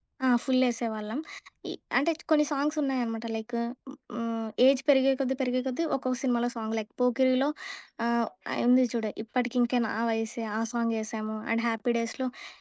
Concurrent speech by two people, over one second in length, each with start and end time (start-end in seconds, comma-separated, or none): none